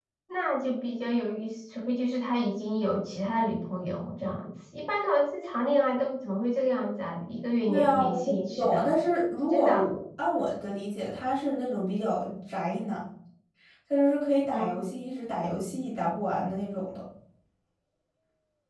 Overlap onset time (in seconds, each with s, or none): 7.7 s